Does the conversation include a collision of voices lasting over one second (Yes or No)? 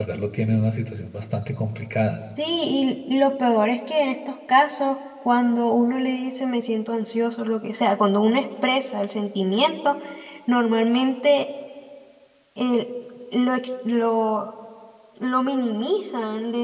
No